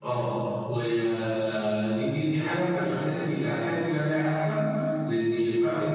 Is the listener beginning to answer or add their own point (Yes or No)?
No